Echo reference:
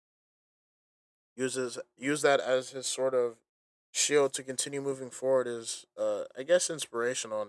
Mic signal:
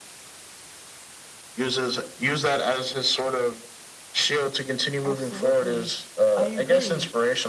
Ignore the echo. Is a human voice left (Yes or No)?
Yes